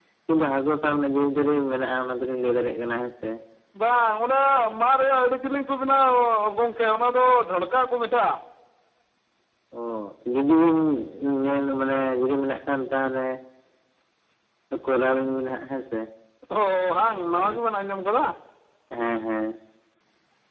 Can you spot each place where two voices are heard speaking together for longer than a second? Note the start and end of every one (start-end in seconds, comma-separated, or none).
none